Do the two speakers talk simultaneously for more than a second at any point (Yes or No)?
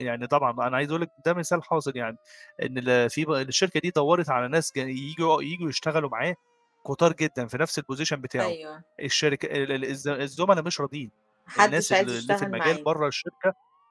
Yes